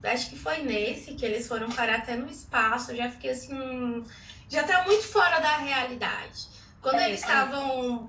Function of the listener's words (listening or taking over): listening